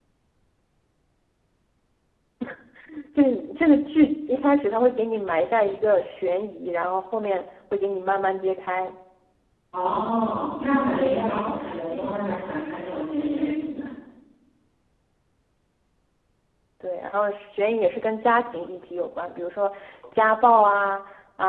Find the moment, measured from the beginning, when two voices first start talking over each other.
none

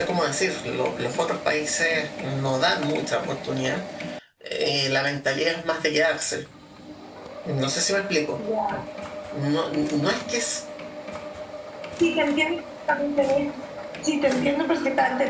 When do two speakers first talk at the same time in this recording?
none

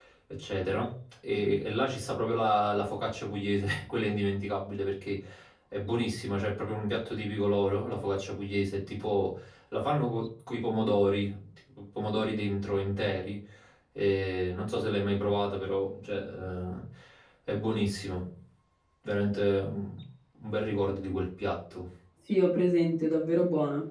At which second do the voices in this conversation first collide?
none

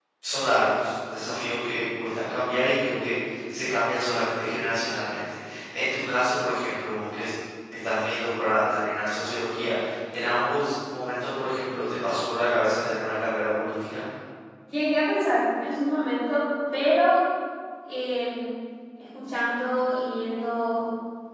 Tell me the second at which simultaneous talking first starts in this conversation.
none

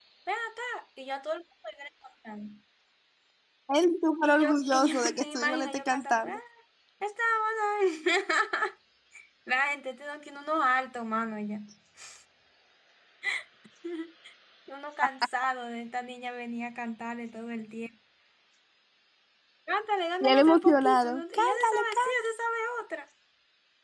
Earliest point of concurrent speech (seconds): 4 s

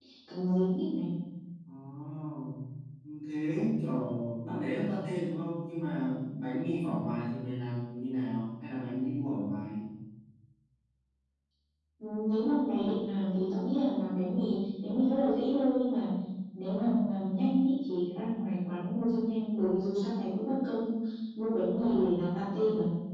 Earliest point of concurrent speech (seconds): none

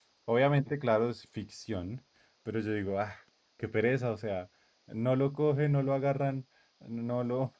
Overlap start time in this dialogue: none

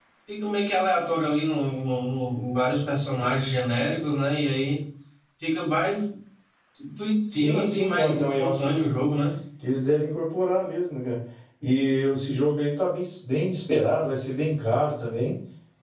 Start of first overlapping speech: 7 s

